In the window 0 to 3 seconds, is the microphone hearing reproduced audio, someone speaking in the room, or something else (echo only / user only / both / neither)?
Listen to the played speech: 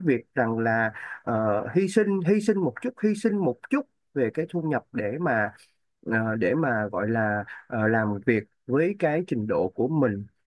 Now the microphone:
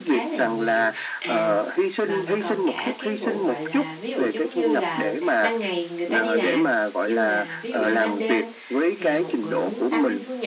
both